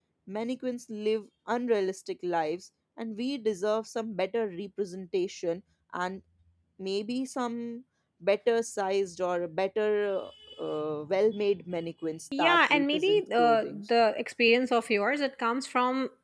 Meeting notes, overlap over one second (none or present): present